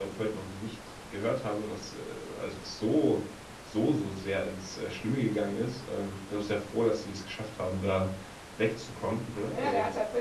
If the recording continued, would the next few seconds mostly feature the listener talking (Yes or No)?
Yes